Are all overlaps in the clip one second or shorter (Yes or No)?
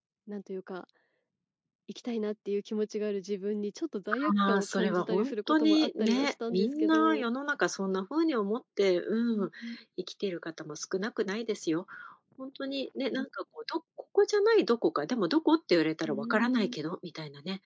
No